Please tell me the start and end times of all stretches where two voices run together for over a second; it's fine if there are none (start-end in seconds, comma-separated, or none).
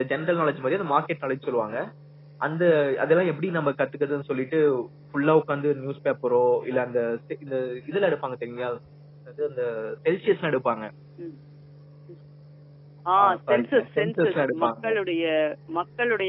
13.2-14.7